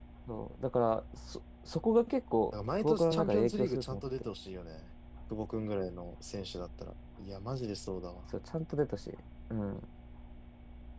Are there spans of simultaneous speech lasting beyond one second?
Yes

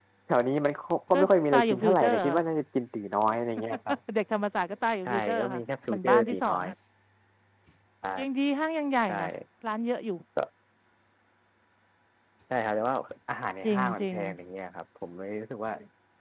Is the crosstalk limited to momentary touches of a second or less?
No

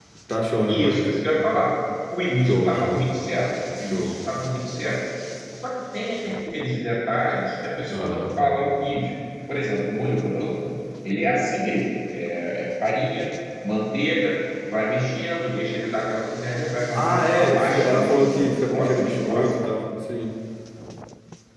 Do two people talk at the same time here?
Yes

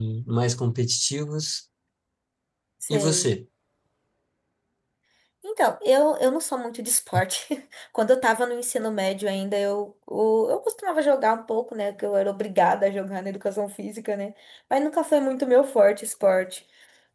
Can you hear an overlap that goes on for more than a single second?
No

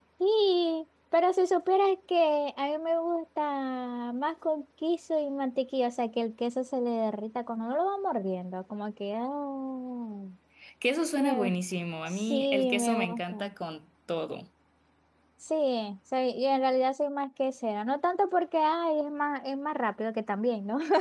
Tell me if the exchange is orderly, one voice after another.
No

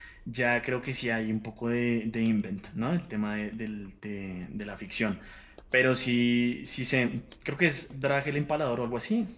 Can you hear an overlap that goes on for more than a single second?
No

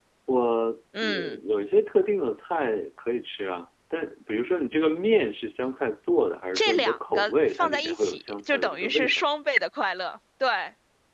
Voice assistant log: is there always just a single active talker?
No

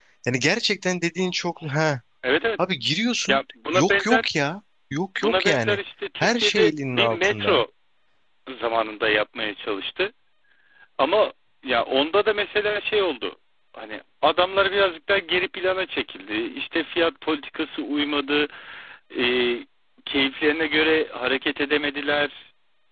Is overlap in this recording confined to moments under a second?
No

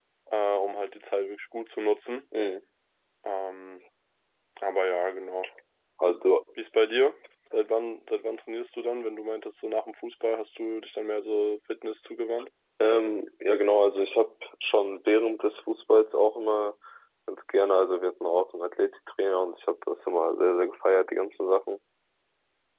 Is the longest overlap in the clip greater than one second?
No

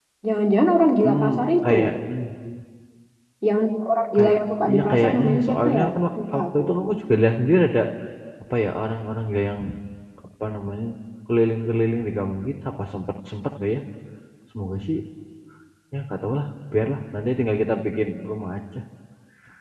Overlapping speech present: Yes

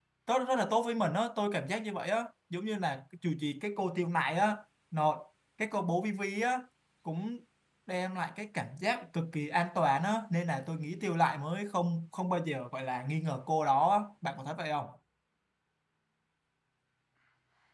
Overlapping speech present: No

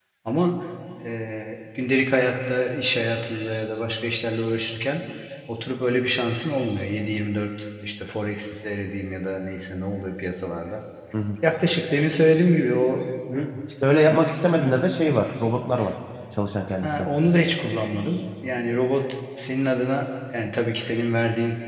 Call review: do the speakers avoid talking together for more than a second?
Yes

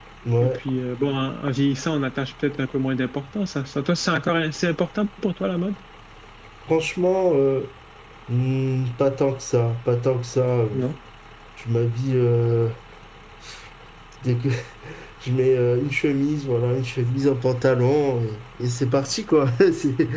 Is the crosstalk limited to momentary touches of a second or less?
Yes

